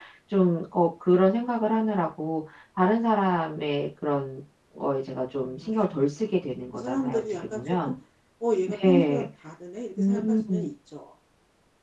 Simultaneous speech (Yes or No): Yes